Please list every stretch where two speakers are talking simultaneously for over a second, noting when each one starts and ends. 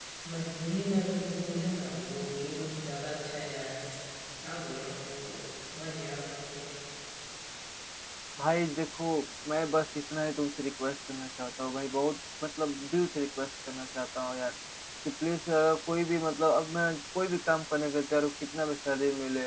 none

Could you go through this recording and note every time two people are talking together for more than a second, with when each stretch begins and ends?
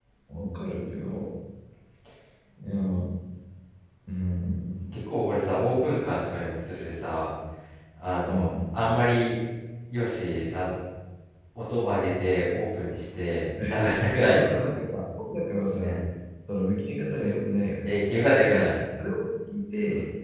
none

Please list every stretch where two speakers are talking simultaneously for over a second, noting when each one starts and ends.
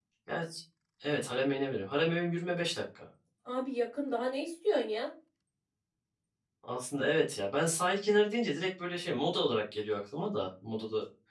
none

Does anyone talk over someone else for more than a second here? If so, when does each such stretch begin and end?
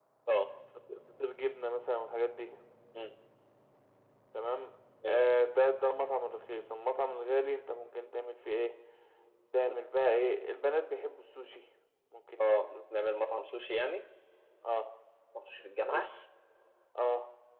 none

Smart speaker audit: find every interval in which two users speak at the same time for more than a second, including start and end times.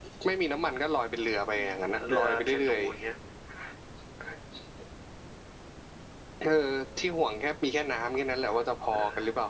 1.6-2.8

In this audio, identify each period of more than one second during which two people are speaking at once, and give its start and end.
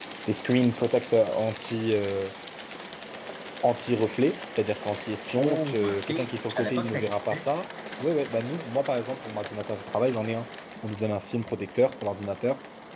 5.4-7.5

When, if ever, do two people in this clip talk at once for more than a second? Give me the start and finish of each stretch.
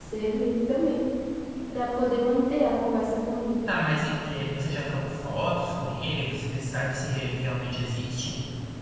none

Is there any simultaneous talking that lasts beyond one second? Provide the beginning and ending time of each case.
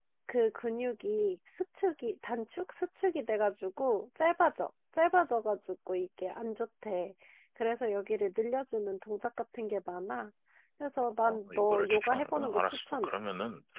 11.2-13.1

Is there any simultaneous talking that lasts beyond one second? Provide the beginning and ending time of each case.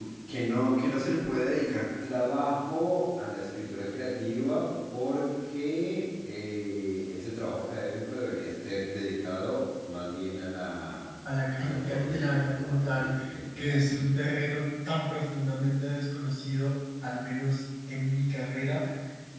11.6-13.1

